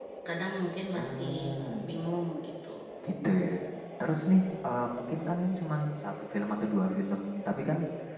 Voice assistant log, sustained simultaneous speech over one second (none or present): none